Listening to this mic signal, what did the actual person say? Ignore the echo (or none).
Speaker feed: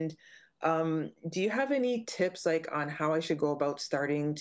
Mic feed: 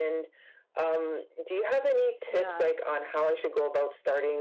yeah.